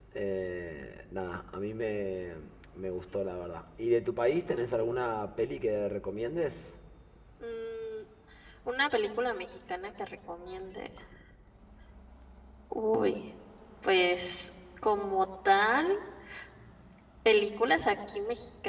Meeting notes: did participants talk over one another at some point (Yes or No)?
No